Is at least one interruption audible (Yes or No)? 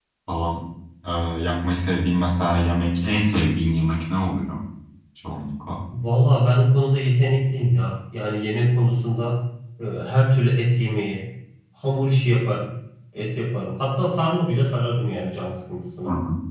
No